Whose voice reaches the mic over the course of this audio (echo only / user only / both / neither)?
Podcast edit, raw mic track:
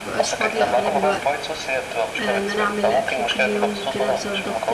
both